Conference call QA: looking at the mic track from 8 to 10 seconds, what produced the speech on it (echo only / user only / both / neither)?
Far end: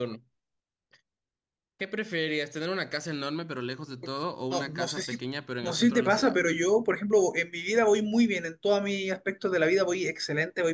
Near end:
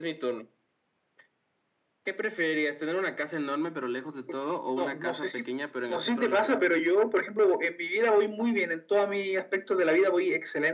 echo only